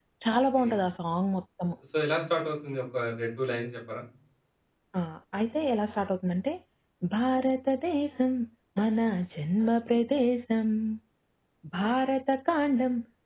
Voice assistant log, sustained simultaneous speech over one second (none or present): none